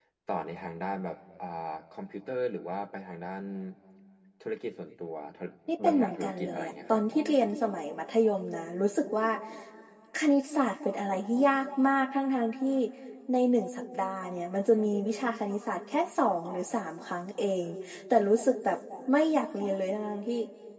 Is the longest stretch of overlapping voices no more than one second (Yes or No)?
No